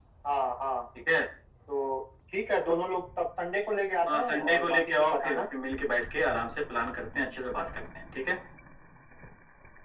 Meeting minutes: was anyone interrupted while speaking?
Yes, from 4.1 s

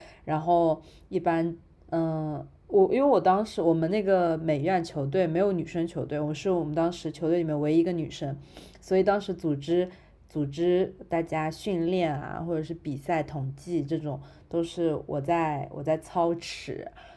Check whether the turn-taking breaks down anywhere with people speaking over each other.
No

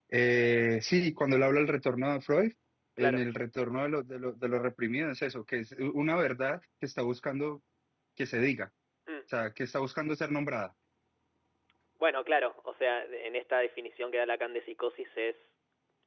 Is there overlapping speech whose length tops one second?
No

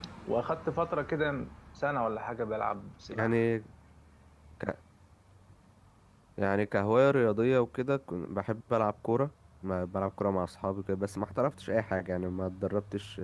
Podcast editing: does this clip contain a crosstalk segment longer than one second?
No

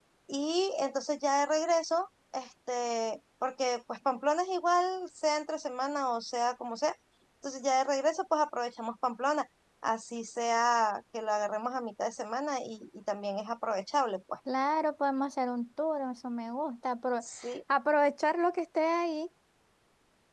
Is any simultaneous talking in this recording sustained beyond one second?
No

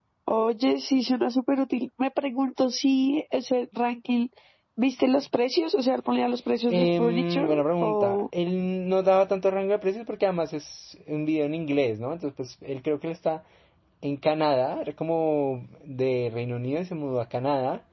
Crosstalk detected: Yes, from 6.7 s

